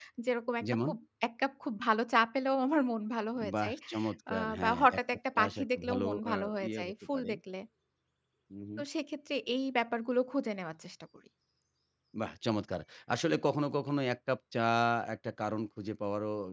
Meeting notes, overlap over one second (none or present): present